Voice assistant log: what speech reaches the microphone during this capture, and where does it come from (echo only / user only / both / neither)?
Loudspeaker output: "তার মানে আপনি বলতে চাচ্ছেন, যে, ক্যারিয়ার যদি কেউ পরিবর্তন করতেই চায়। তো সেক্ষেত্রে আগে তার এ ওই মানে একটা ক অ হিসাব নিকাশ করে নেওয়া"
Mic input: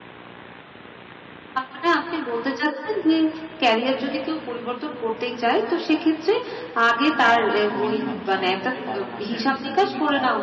both